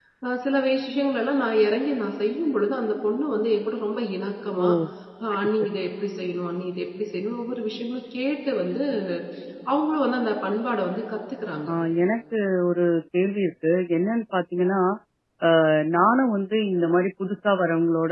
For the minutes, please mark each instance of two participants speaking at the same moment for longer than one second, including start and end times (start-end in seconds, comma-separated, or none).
none